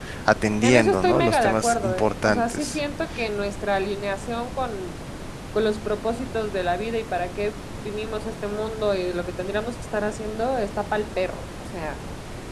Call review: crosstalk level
present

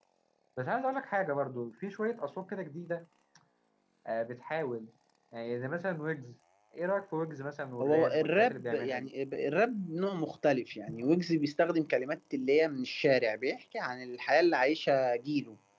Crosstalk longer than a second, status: present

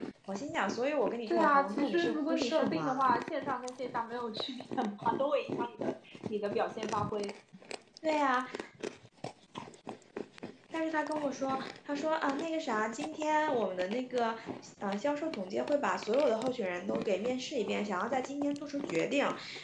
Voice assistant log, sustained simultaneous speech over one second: present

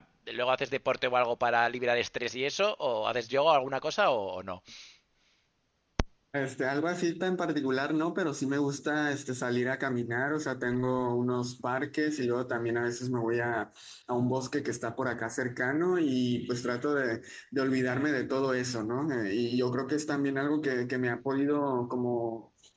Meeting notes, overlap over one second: none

